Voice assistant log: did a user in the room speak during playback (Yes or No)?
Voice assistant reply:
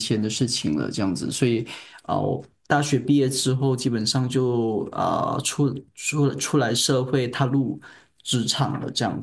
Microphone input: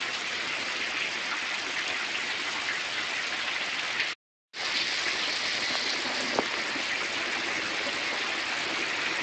No